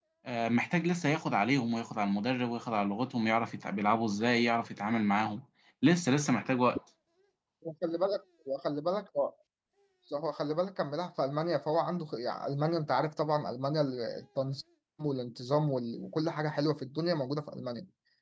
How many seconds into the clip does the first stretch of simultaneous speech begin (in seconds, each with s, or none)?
none